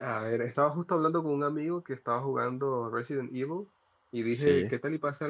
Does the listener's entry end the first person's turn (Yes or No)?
No